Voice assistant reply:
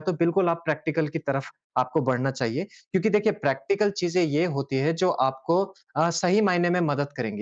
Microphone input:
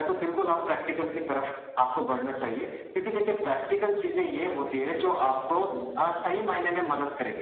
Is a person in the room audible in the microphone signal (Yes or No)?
Yes